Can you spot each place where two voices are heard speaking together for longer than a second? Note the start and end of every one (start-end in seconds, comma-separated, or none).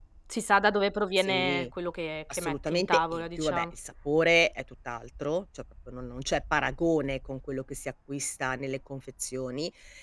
2.3-3.6